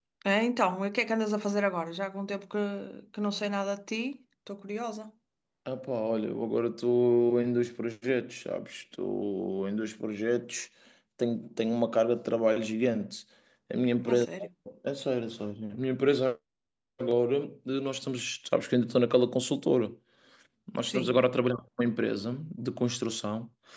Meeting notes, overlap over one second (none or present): none